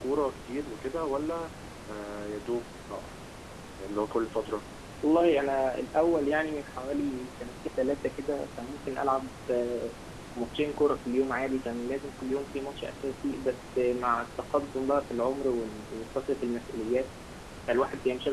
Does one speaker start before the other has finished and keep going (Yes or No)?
No